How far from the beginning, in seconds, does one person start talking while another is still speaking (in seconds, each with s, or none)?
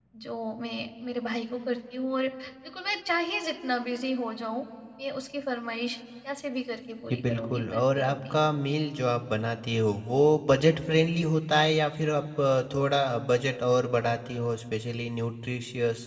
7.1 s